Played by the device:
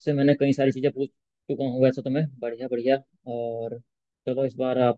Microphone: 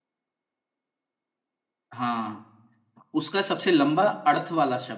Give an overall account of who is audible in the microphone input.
user only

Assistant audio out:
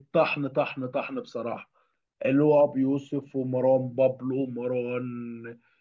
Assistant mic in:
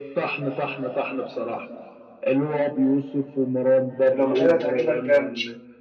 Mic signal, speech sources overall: both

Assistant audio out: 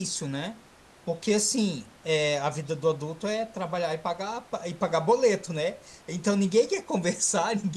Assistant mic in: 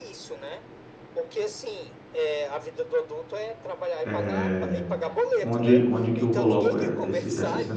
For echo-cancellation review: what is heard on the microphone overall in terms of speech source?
both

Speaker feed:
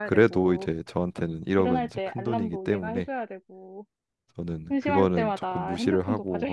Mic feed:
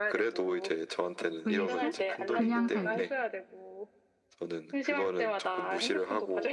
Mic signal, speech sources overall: both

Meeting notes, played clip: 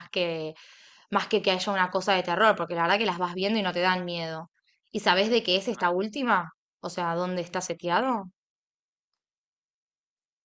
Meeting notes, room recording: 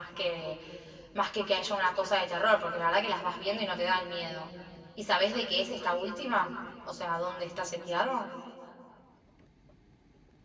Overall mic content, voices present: echo only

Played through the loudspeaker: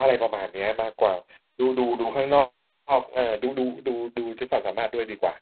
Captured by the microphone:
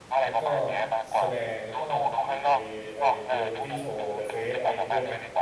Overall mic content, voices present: both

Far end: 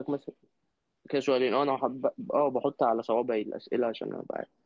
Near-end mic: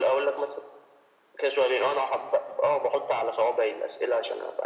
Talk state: echo only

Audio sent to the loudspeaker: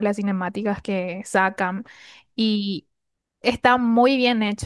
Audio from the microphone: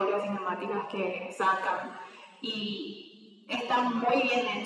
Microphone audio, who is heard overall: echo only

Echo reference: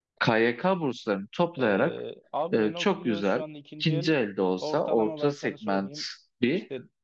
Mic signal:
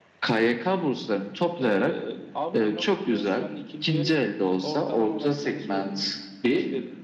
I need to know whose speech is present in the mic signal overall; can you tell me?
echo only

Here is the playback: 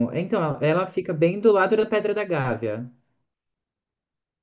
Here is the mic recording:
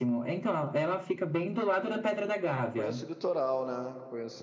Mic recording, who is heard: both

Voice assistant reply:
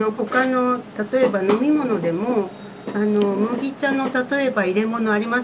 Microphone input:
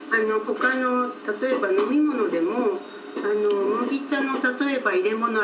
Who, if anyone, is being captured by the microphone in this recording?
echo only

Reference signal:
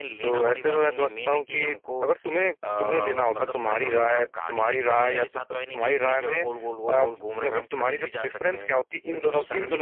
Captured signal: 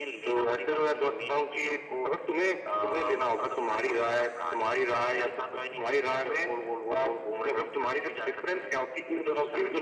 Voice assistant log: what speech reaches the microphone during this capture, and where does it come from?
echo only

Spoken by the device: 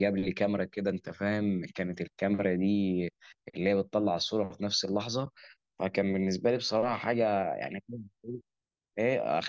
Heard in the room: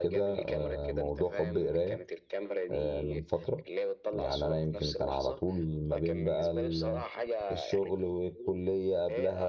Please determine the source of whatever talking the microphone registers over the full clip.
both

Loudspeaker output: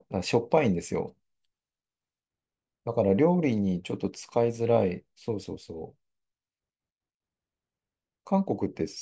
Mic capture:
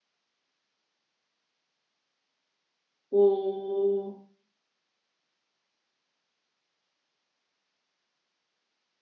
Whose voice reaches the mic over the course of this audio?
user only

